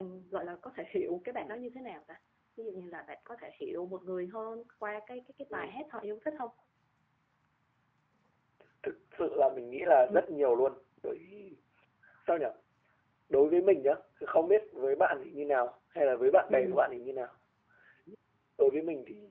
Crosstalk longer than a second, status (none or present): none